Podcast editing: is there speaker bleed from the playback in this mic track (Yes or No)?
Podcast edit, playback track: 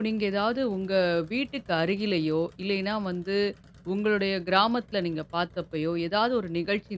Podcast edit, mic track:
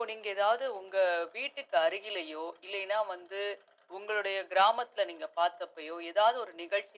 Yes